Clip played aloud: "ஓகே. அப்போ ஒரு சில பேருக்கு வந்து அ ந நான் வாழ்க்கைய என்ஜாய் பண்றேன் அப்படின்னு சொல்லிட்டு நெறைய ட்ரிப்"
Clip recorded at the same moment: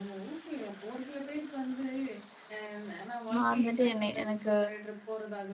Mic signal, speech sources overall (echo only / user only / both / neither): both